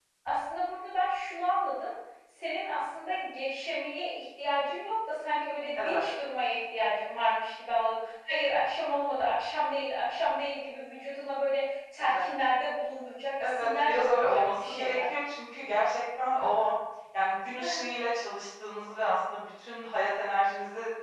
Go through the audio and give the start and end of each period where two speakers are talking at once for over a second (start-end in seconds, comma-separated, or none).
13.4-15.0